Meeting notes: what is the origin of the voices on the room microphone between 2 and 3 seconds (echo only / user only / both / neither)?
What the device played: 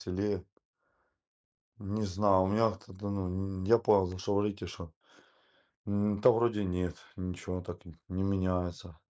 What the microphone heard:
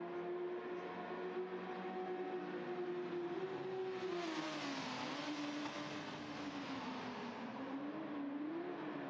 neither